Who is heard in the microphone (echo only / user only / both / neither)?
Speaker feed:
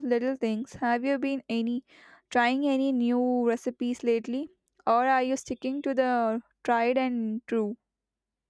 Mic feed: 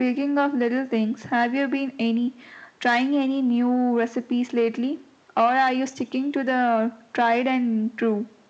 echo only